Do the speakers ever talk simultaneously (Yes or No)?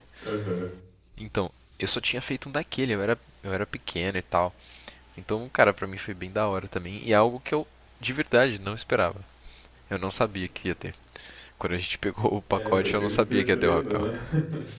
Yes